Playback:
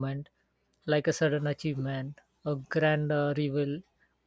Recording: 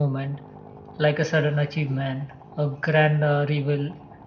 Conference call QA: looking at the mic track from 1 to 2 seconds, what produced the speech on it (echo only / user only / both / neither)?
echo only